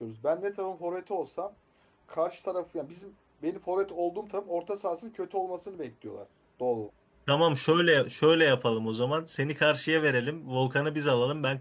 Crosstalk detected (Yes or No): No